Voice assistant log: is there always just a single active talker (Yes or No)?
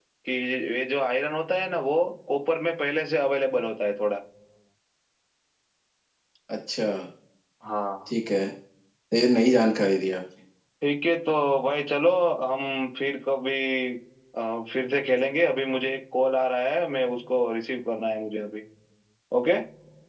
Yes